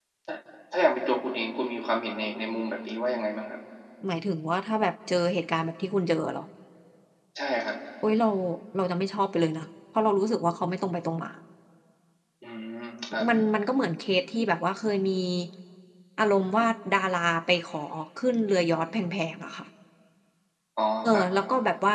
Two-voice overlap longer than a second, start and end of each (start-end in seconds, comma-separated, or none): none